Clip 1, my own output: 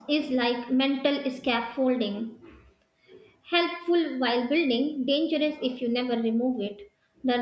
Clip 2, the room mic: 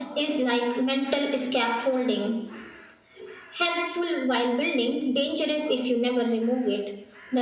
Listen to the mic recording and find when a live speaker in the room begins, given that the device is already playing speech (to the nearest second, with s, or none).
none